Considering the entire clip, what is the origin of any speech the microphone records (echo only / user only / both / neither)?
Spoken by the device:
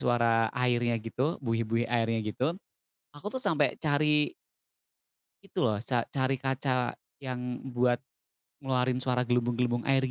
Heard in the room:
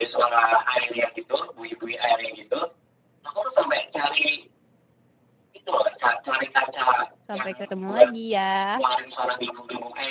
both